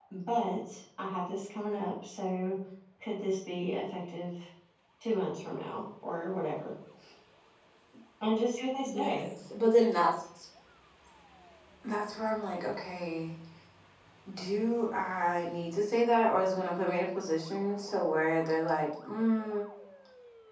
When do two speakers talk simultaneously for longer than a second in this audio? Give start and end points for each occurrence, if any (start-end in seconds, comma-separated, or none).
none